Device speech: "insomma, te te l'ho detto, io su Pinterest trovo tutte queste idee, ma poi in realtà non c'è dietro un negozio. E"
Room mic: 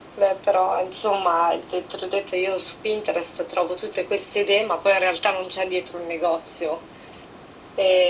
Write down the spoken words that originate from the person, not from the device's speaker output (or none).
none